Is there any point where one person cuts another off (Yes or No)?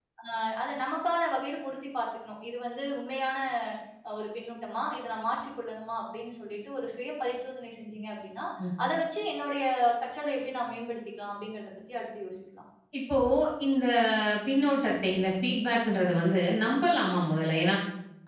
No